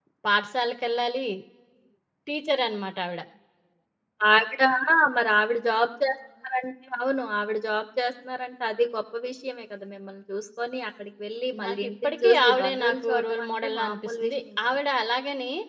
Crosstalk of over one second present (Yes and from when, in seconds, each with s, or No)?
Yes, from 11.5 s